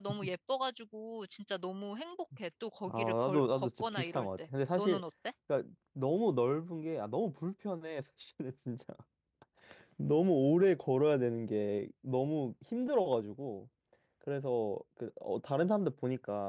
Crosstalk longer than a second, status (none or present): present